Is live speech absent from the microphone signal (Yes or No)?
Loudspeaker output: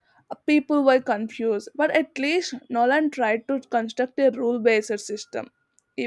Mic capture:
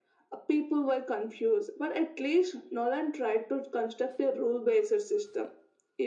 Yes